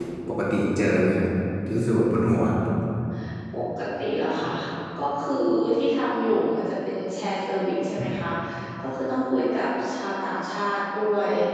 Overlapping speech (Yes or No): No